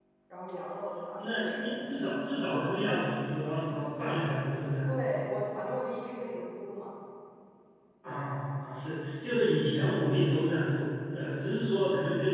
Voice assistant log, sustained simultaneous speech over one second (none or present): none